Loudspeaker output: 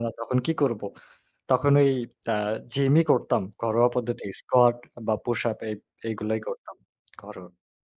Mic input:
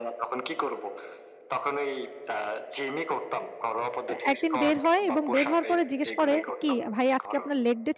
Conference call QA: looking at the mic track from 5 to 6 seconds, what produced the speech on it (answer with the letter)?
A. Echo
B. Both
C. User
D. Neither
B